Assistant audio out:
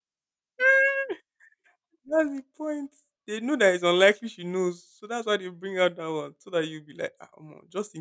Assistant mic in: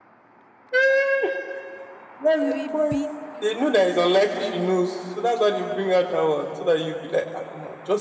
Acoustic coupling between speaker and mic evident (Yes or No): Yes